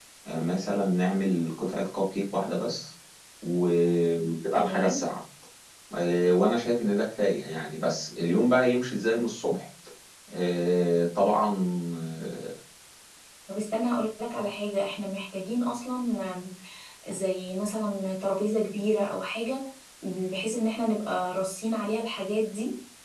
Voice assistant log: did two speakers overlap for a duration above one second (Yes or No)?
No